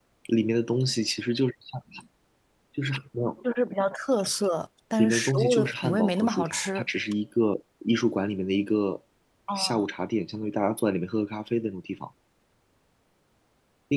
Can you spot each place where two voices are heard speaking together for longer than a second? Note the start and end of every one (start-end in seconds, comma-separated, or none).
5.0-6.8